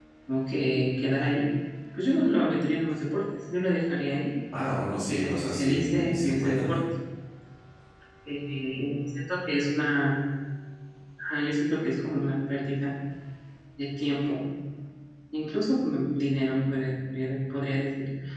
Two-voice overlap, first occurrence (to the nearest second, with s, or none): 5 s